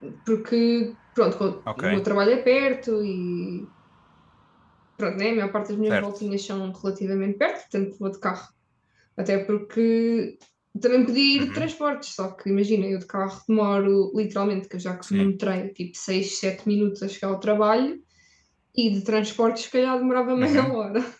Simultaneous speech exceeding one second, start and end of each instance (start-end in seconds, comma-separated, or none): none